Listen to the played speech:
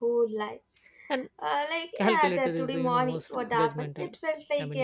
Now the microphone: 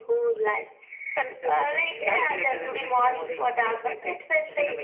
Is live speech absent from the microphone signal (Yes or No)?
No